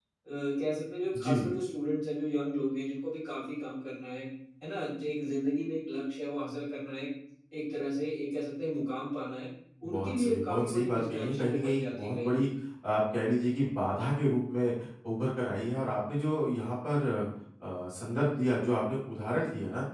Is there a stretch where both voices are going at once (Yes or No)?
Yes